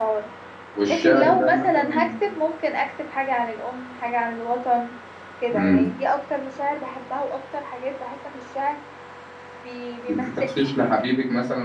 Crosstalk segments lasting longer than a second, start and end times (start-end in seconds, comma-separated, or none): 0.9-2.1